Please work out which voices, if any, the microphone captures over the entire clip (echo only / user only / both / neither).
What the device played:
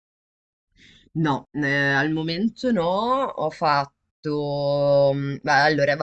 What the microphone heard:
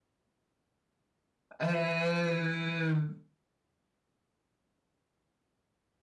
user only